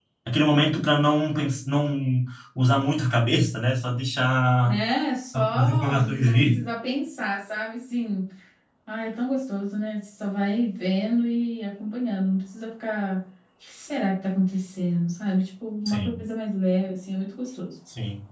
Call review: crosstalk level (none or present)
present